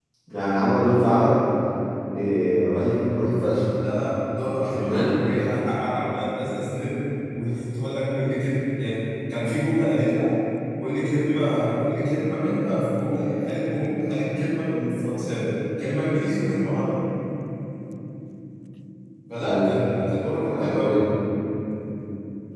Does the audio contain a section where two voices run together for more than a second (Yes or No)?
No